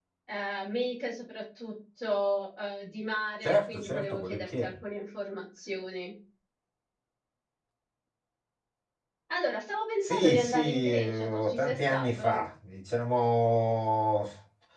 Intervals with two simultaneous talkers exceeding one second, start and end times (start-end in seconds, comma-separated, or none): 3.4-4.7, 10.0-12.4